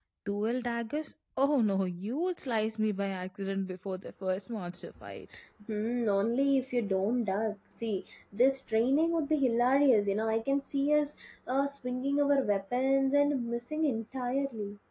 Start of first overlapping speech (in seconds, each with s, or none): none